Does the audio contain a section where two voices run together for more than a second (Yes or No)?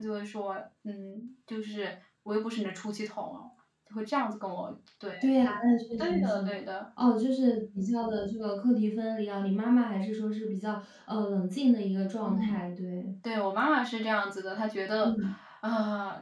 No